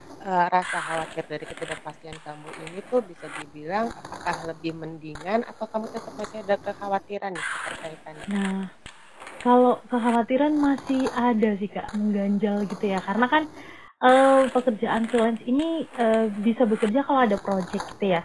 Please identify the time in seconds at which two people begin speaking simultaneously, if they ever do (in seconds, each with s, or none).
none